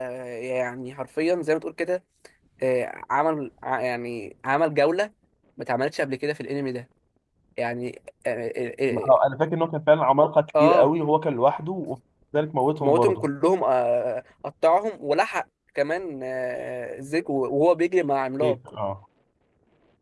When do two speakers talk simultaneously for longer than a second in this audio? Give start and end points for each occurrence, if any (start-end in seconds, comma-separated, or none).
none